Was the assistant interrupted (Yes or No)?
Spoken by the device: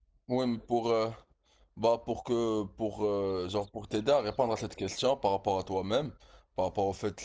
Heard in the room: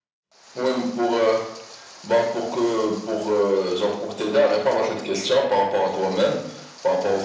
No